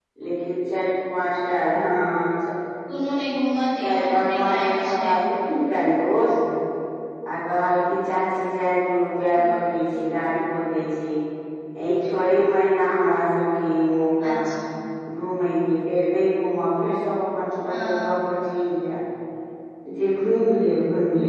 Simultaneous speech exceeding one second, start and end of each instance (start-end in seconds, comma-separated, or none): 3.8-5.1